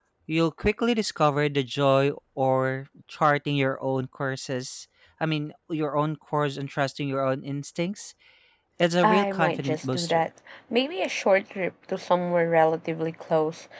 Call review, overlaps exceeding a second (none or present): present